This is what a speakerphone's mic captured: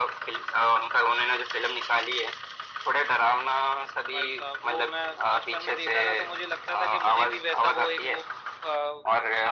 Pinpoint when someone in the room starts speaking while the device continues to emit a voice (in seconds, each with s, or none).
none